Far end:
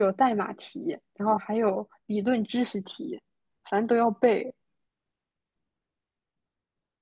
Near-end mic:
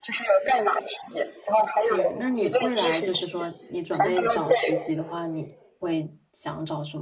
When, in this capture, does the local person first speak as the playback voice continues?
1.8 s

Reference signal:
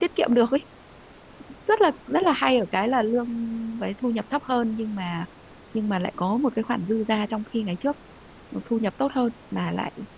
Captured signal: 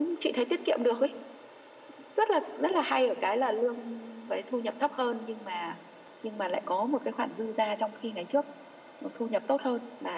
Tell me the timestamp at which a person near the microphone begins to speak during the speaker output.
none

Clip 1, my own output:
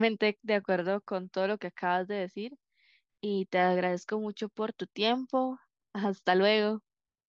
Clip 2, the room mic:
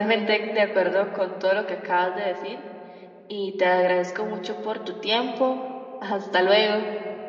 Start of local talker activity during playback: none

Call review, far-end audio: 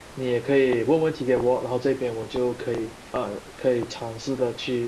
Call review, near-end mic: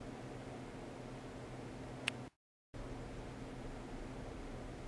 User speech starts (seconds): none

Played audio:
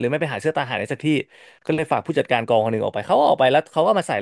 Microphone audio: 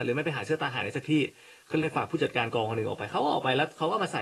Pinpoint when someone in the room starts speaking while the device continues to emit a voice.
none

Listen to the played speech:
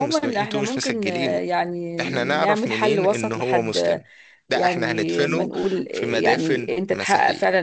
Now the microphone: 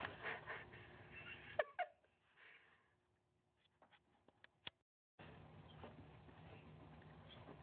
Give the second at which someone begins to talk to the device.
none

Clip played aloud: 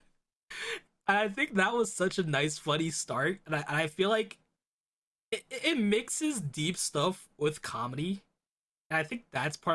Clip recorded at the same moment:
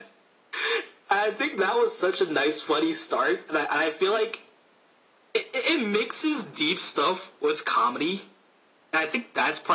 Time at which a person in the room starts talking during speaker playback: none

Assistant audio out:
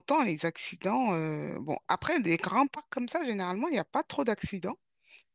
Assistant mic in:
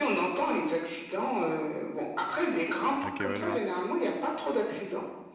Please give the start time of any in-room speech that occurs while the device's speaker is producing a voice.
3.0 s

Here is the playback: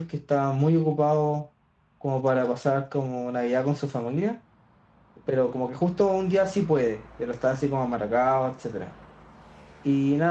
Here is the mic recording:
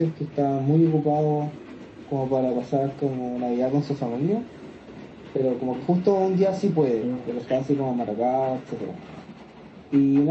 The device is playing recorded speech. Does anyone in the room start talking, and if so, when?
7.0 s

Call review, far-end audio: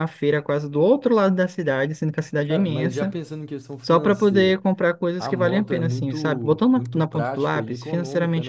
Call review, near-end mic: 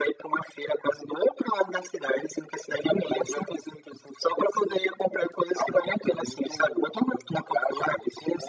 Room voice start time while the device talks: none

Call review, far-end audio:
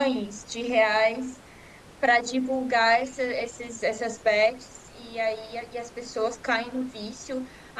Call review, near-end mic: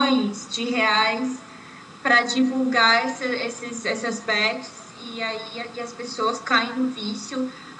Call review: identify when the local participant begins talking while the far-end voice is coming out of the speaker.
none

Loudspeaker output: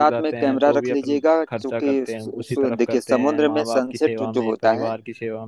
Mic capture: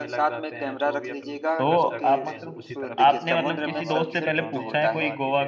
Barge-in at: 1.6 s

